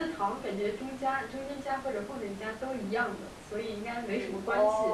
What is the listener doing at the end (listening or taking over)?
taking over